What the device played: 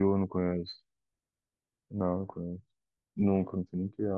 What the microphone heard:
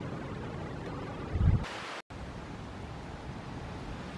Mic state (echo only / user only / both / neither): neither